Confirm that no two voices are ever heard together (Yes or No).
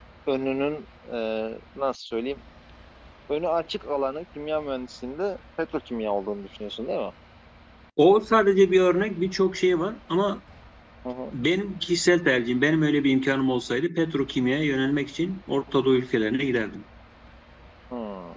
Yes